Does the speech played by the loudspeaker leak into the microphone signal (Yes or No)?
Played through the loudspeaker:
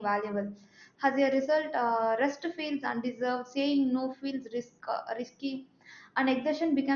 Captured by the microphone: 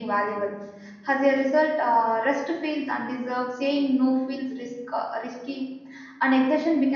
Yes